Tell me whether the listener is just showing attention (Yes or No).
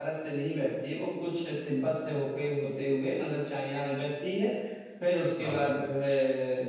Yes